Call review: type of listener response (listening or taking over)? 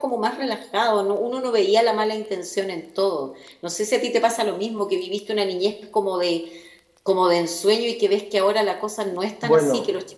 listening